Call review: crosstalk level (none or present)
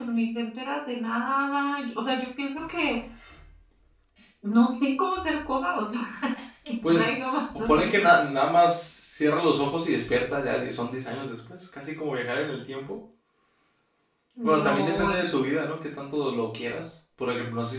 present